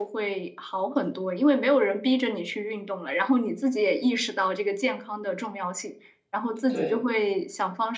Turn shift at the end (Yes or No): No